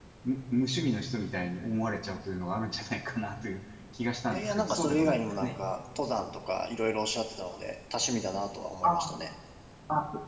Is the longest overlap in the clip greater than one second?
Yes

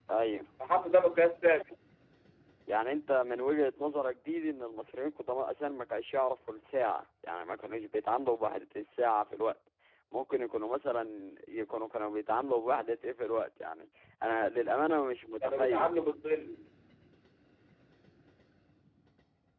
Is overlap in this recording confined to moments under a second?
Yes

